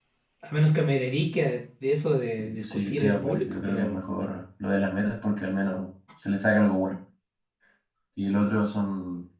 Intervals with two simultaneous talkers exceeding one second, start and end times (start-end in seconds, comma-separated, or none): 2.6-4.0